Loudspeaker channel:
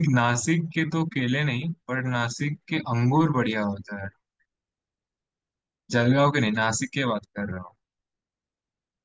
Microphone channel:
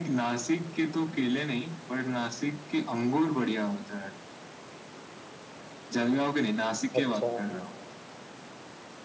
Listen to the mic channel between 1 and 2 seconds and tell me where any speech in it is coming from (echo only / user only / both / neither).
echo only